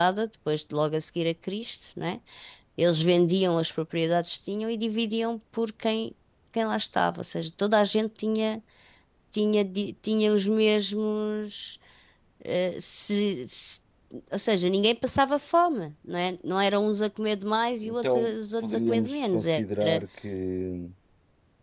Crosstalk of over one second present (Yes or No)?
Yes